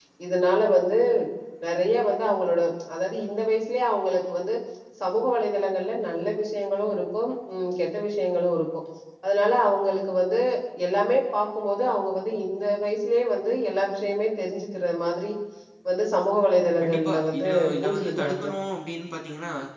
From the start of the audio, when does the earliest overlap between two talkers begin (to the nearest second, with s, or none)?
17 s